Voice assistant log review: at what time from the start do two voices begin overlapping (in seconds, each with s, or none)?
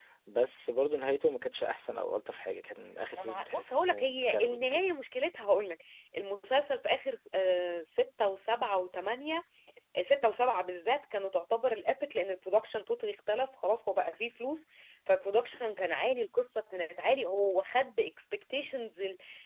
3.2 s